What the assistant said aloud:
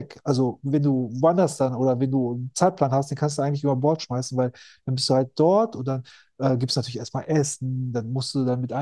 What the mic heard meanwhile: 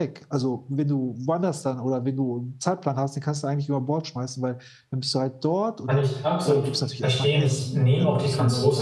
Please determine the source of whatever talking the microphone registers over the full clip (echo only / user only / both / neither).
both